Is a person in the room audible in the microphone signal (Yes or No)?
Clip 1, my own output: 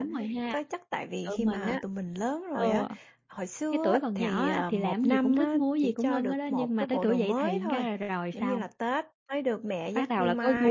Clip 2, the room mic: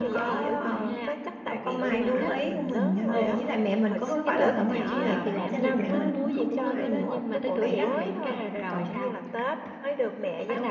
Yes